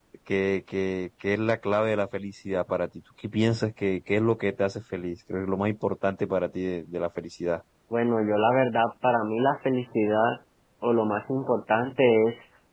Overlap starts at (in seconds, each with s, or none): none